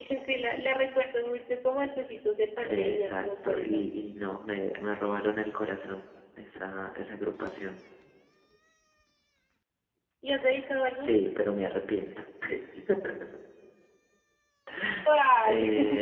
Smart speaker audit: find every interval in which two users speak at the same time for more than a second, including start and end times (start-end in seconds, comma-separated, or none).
2.6-3.8